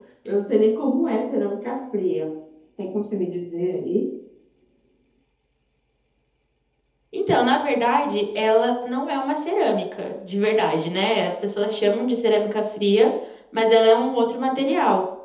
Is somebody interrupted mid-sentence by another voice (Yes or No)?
No